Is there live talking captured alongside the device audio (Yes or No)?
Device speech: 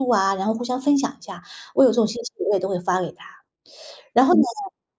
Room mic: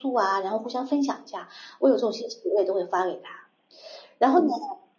No